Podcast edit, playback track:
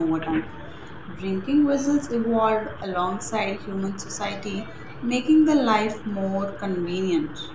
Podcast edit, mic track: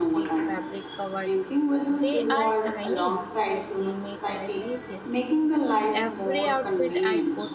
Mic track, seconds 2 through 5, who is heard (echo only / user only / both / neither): both